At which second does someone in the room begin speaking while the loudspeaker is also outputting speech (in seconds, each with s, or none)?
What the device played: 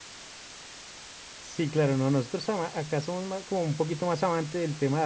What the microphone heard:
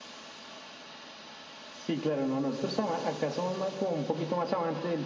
none